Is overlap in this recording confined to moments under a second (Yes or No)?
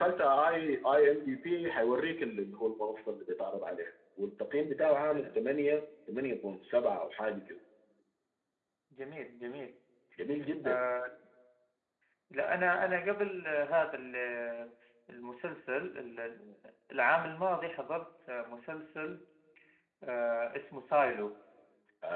Yes